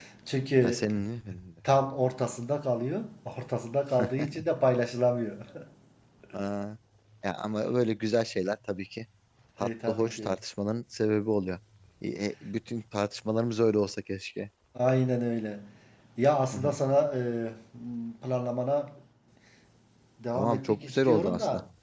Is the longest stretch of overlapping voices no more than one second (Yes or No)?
No